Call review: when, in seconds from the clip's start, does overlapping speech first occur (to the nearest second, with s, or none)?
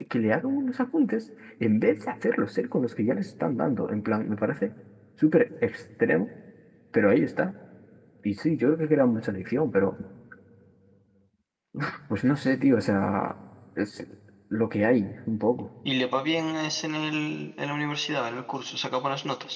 none